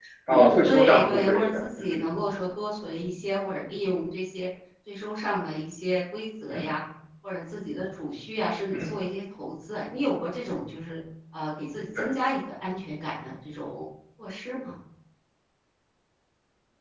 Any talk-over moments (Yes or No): Yes